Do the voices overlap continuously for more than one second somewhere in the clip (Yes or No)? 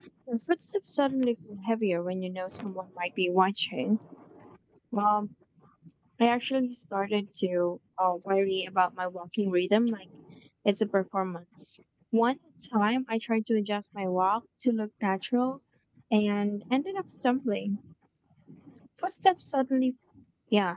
No